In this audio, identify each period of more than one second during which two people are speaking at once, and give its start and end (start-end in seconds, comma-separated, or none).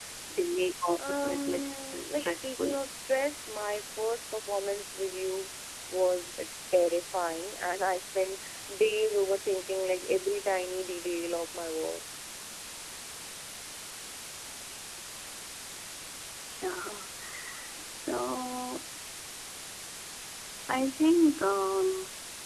1.1-2.8